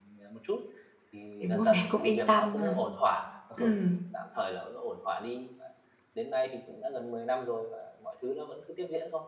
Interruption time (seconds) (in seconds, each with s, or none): 1.4 s